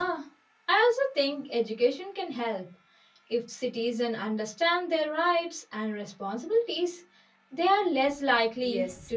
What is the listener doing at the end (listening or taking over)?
taking over